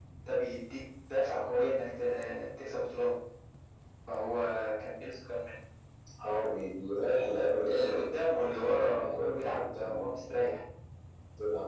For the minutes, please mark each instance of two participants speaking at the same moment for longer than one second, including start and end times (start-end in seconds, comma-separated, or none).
7.7-10.1